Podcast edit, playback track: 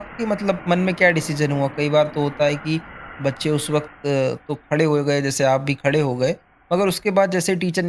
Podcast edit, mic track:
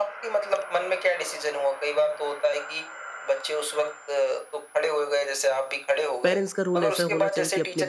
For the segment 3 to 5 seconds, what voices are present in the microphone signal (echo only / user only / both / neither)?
echo only